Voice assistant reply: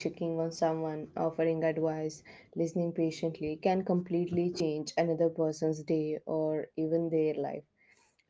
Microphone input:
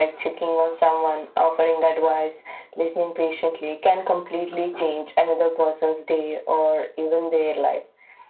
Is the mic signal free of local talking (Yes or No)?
Yes